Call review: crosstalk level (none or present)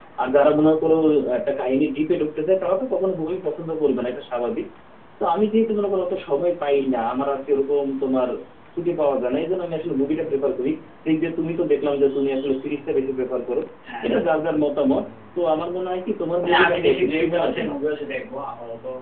present